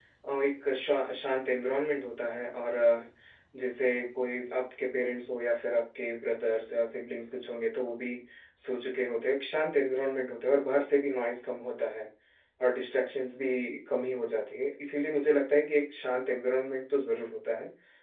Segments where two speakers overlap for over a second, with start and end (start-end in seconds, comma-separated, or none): none